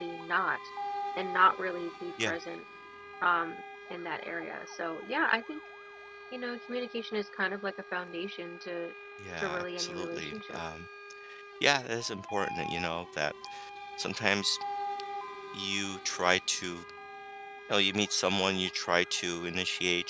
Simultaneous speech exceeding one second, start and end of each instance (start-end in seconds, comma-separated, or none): 9.4-10.6